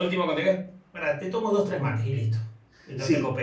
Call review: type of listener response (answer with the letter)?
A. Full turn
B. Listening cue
A